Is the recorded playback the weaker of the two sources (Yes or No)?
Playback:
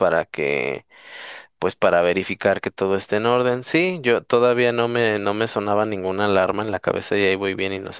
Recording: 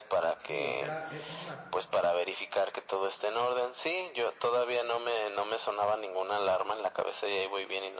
No